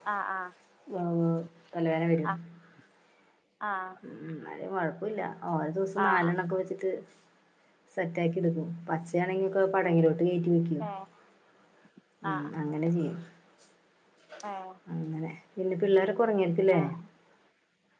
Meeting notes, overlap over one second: none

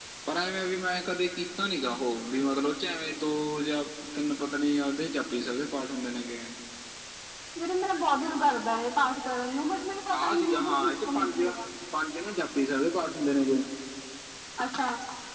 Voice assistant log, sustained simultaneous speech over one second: present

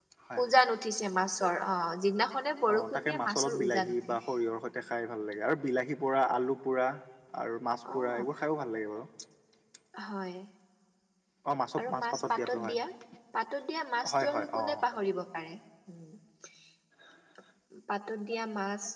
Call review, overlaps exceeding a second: present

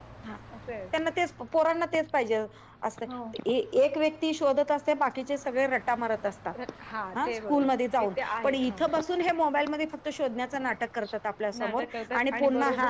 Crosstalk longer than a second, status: present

